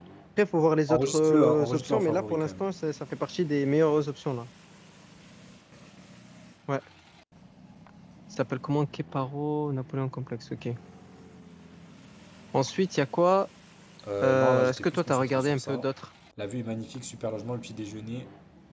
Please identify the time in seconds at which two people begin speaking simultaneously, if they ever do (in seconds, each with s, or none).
0.9 s